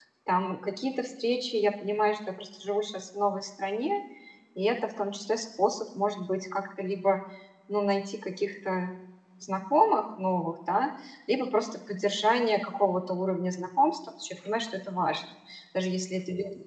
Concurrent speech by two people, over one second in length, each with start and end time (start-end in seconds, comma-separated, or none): none